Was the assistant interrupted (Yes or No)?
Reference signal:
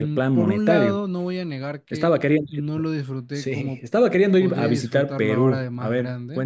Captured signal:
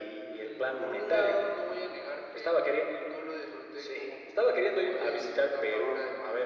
No